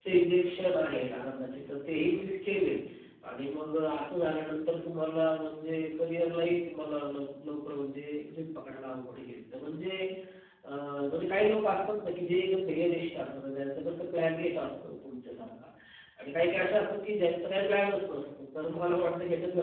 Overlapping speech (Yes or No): No